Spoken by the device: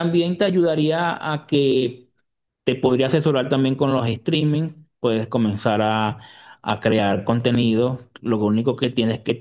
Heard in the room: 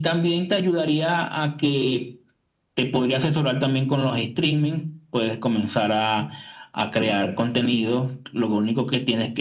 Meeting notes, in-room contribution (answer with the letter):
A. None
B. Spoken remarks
A